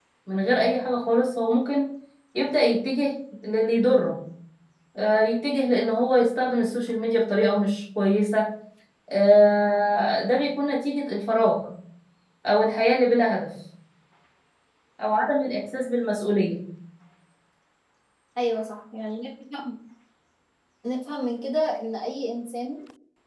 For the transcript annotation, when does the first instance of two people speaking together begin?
none

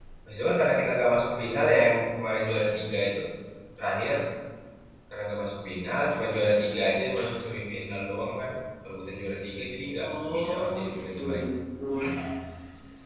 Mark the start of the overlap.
10.0 s

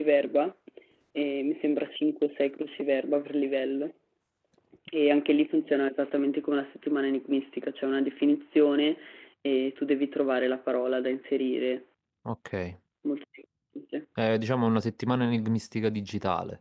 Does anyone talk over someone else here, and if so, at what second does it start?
none

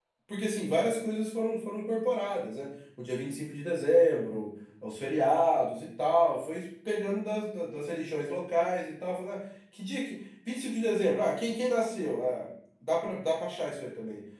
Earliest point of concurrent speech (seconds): none

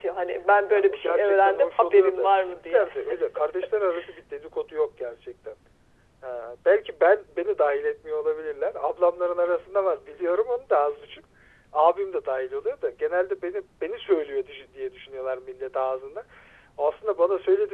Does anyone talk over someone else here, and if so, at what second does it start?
0.7 s

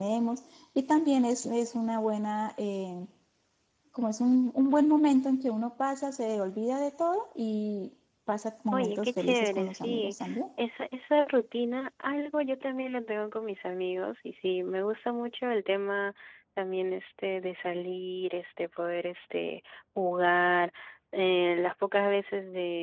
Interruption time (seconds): 8.7 s

